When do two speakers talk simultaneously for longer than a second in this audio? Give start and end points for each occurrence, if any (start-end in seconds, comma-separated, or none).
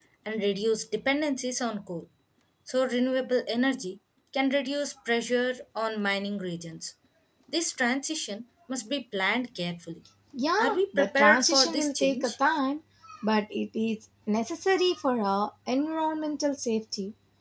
10.6-12.3